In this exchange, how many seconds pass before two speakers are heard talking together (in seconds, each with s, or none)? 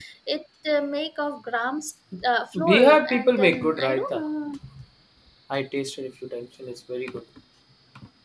2.7 s